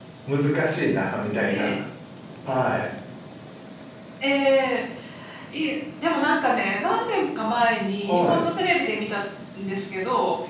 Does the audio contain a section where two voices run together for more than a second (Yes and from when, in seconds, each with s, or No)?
No